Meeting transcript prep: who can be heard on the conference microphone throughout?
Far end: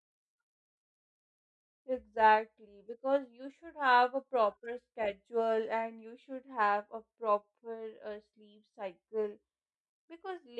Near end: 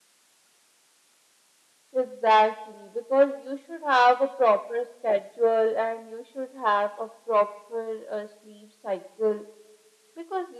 echo only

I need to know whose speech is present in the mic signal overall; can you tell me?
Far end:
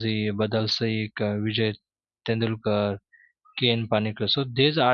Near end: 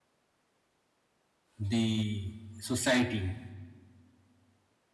user only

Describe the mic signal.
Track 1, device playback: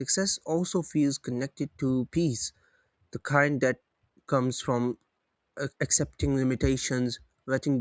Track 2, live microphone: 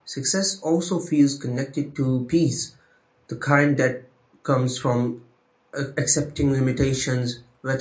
echo only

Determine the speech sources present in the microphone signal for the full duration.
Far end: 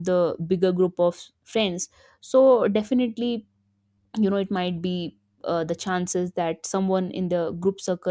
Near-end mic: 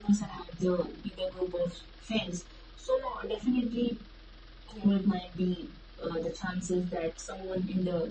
echo only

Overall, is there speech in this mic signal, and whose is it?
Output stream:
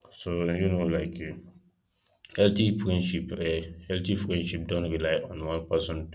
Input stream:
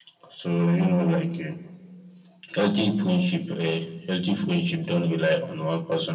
echo only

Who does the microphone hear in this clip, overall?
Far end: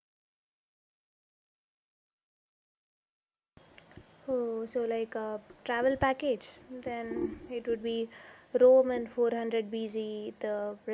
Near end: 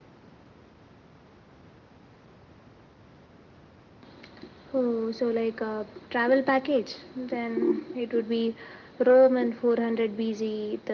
echo only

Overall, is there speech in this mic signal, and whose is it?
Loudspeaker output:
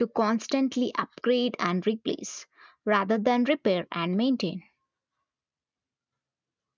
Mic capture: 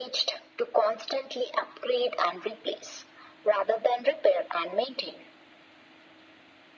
echo only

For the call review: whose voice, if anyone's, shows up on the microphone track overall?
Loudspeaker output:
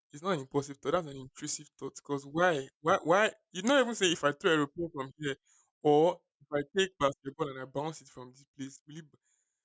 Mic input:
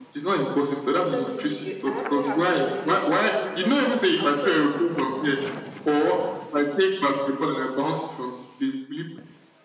both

